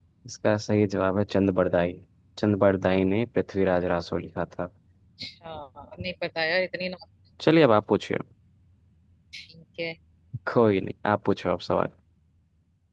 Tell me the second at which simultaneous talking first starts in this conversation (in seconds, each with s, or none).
none